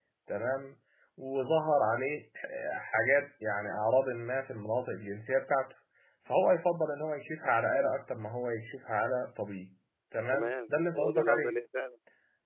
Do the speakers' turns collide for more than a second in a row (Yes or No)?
Yes